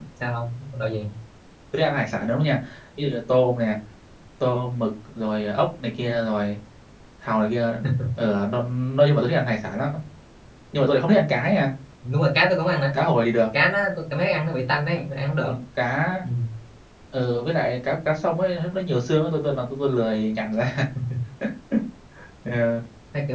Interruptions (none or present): none